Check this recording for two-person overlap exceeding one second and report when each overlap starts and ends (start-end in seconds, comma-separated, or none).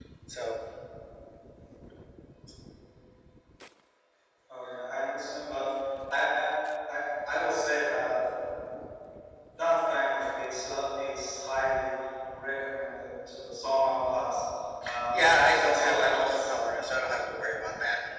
15.1-16.6